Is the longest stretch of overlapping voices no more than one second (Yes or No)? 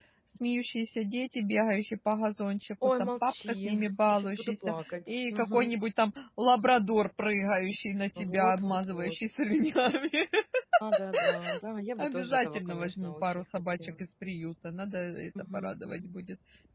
No